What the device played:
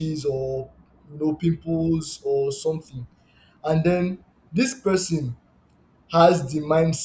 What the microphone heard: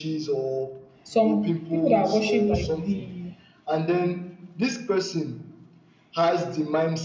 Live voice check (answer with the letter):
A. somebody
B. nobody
A